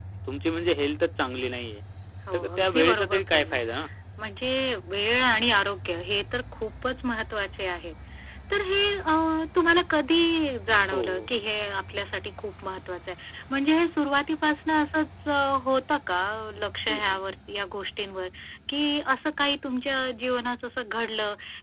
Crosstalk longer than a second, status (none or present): present